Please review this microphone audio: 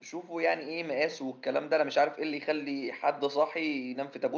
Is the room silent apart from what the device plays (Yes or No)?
No